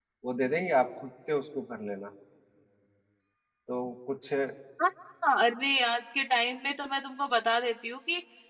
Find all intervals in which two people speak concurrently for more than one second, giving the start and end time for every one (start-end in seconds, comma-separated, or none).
none